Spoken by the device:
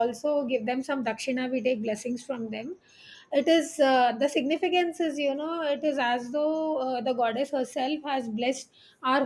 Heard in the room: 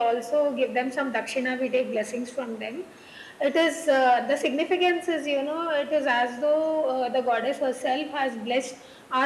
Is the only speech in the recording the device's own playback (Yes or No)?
Yes